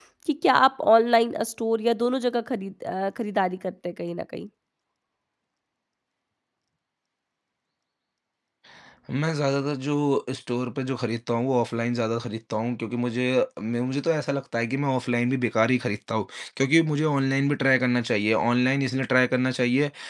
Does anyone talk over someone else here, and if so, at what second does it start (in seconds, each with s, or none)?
none